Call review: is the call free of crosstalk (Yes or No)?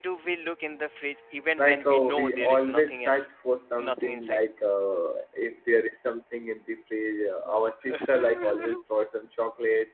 No